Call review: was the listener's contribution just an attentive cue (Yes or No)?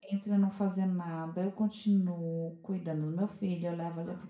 Yes